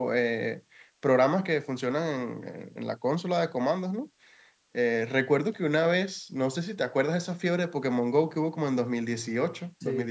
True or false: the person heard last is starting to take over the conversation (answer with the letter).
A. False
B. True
A